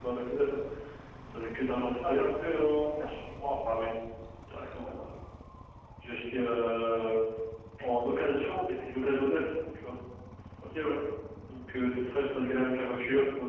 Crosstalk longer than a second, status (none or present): none